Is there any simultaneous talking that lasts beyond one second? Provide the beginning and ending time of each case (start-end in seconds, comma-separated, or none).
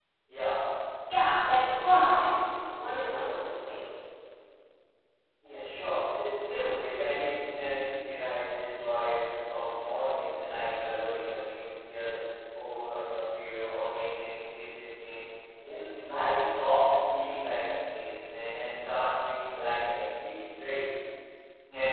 none